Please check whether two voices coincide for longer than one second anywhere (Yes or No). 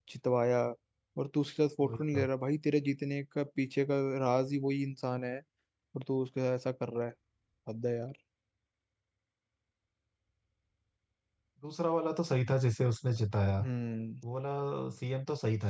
No